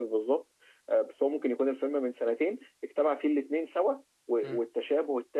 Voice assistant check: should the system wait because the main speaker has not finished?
Yes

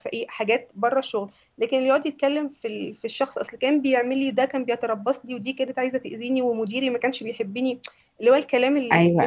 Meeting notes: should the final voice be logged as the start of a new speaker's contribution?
Yes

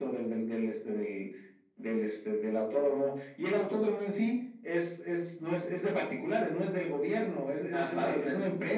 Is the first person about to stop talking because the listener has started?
No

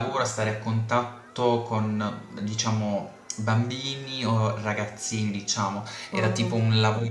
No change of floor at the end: Yes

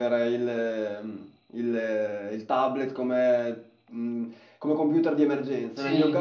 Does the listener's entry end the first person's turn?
No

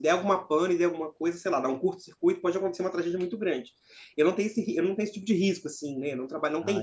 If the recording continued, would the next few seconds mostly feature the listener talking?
No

